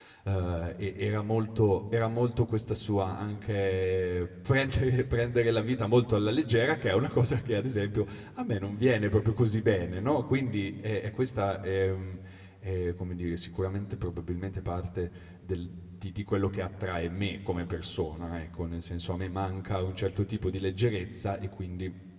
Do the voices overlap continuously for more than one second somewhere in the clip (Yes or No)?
No